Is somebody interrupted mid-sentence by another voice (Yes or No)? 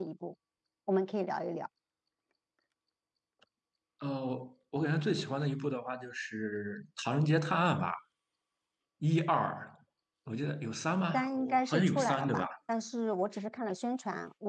Yes